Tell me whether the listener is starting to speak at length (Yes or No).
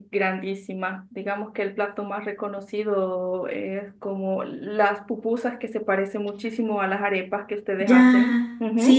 Yes